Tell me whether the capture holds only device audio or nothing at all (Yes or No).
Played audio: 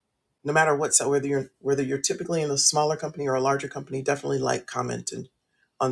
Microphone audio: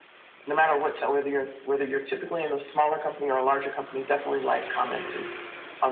Yes